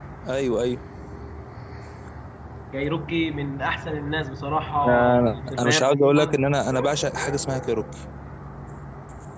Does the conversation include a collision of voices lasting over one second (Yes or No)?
Yes